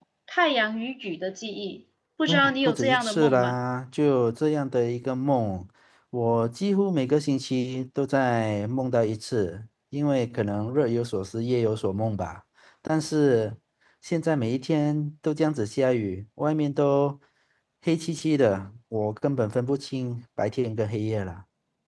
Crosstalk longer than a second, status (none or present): present